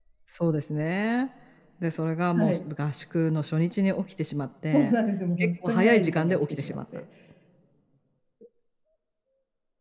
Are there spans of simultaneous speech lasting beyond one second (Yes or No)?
Yes